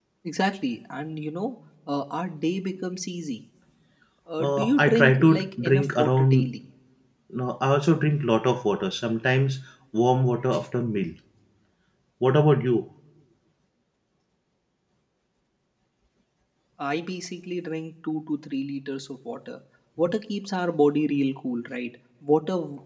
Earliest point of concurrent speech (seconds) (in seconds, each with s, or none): 4.4 s